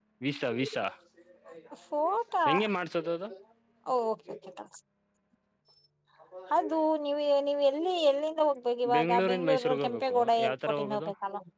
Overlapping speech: Yes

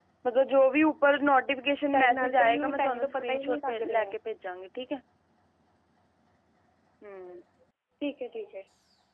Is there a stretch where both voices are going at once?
Yes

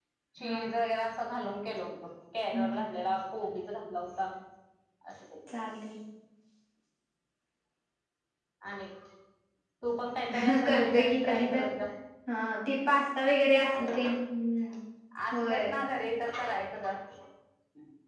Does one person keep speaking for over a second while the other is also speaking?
Yes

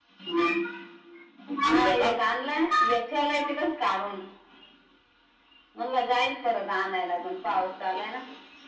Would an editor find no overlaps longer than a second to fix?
Yes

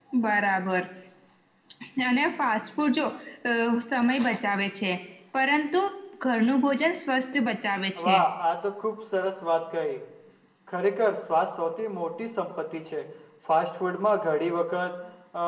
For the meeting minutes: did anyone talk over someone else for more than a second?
No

